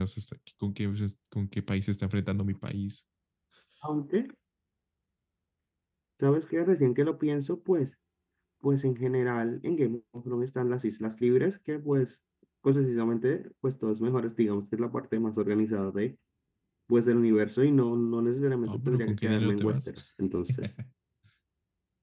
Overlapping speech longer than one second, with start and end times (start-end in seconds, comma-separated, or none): 18.6-19.9